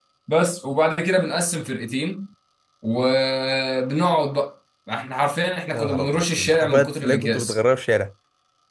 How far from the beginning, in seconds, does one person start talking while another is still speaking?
5.7 s

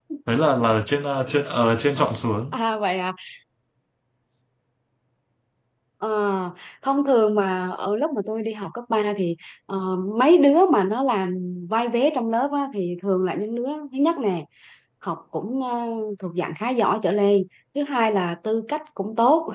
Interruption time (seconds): none

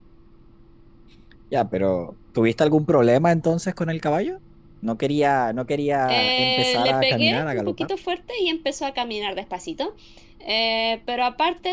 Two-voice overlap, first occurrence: 6.1 s

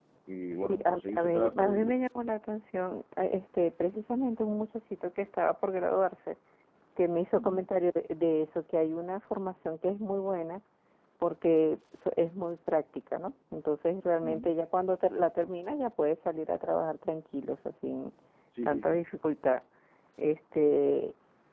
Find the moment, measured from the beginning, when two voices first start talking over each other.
0.5 s

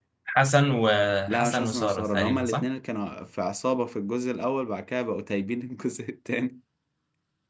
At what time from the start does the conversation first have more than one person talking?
1.3 s

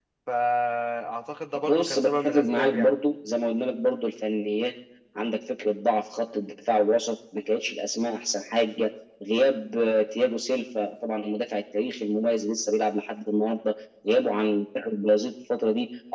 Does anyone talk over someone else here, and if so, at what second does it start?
1.6 s

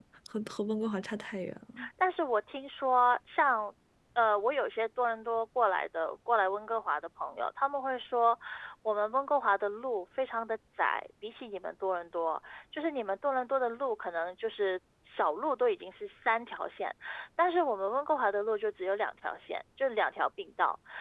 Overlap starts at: none

